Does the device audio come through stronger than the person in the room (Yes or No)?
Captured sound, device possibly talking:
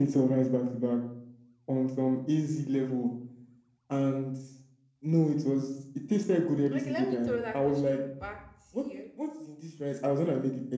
Yes